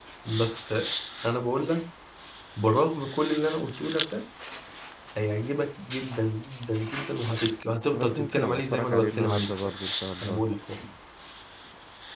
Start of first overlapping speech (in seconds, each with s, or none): 7.9 s